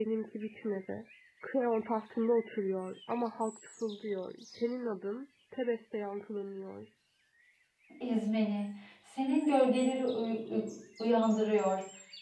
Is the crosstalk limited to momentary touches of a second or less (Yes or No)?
Yes